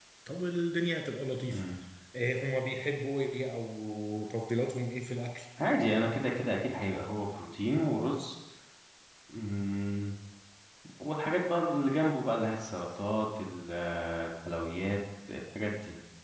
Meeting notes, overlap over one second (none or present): none